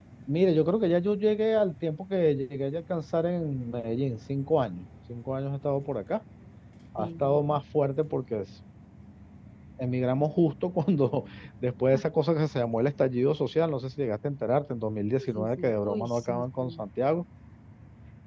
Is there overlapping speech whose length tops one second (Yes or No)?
Yes